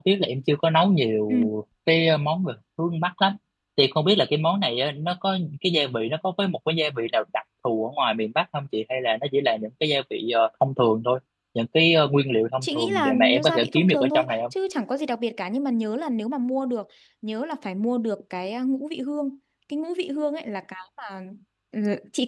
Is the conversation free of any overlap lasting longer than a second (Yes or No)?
No